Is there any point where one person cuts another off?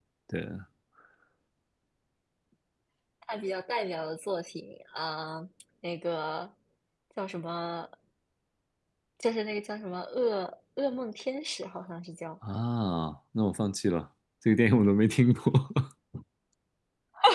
No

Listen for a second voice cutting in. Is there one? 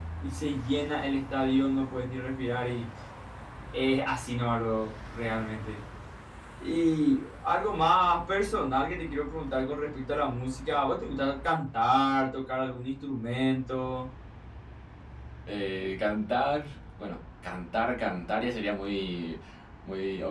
No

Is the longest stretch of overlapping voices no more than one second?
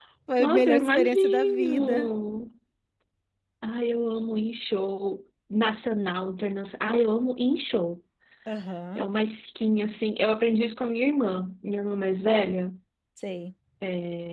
No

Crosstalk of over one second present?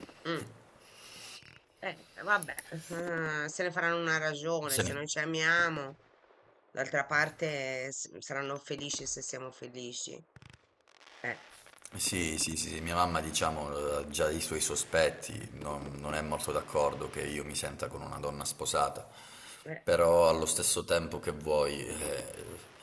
No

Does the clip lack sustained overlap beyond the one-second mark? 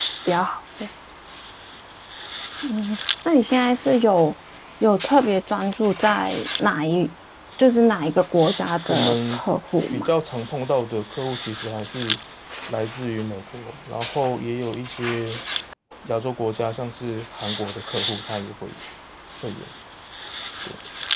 Yes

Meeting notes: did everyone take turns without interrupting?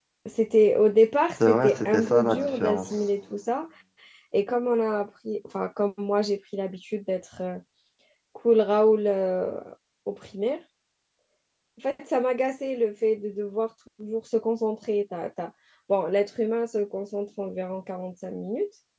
No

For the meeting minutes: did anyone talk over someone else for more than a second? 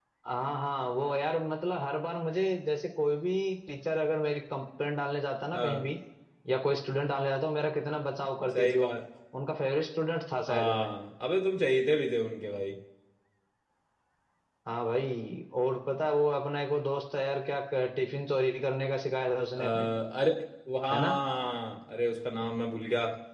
No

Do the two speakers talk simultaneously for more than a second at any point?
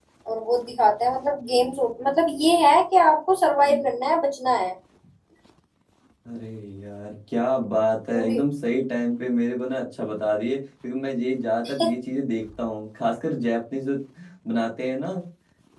No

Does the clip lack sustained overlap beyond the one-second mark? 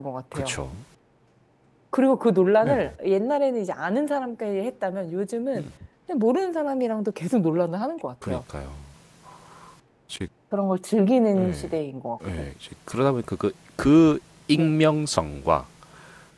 Yes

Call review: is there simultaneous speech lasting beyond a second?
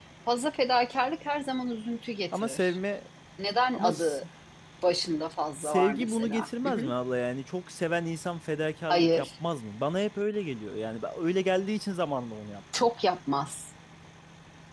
Yes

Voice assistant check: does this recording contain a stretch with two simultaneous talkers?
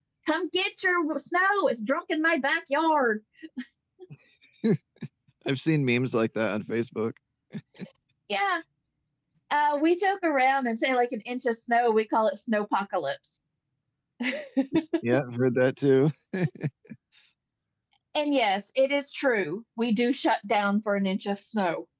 No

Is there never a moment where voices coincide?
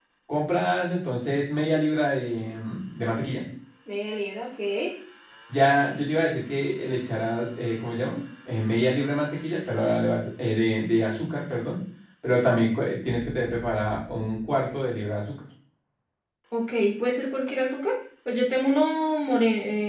Yes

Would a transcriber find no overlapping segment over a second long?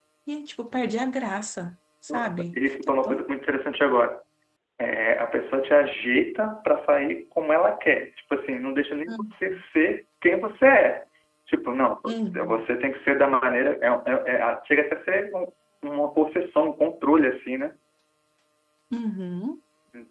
No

